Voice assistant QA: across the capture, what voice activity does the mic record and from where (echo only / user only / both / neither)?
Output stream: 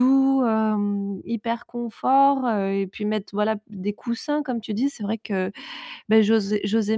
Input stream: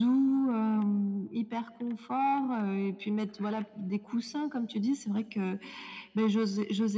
echo only